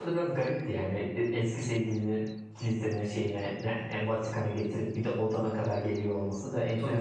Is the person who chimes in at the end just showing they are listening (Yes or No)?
No